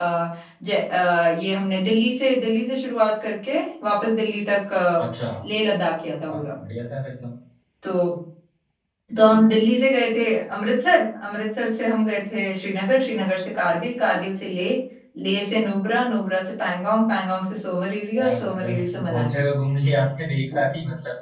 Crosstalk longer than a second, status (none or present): present